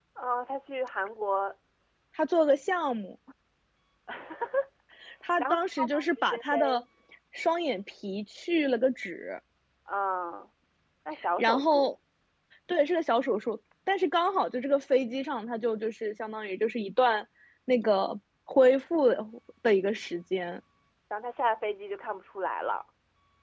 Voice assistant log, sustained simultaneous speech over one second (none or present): present